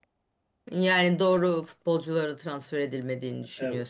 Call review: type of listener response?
taking over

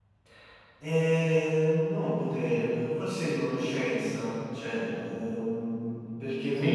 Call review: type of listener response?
taking over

